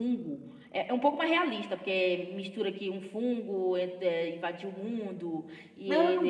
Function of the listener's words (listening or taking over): taking over